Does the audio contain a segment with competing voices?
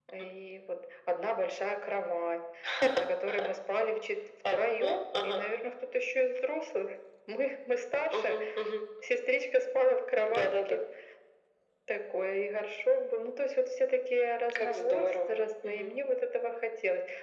Yes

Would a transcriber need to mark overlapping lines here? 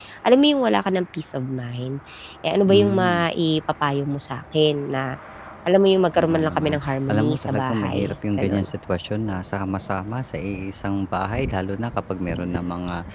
Yes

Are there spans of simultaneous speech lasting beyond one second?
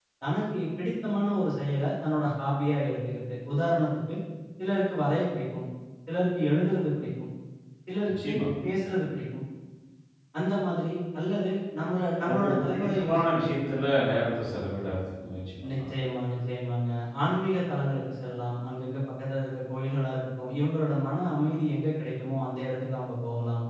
Yes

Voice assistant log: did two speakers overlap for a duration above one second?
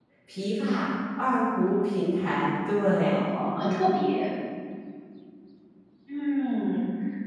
No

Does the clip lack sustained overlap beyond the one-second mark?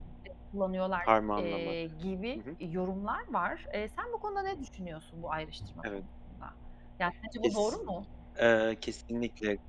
Yes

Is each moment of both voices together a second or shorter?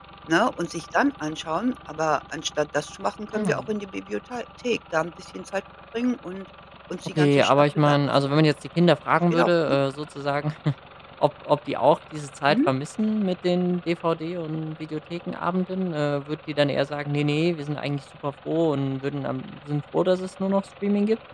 No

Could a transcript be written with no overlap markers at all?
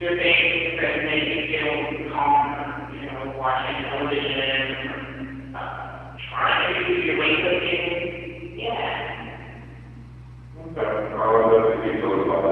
Yes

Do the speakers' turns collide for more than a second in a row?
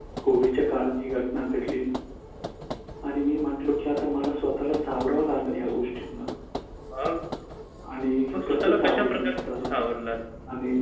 Yes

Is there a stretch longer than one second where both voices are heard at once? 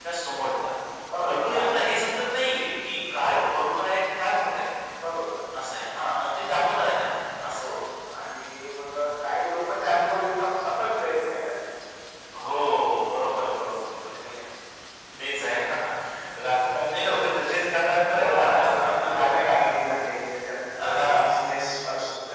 Yes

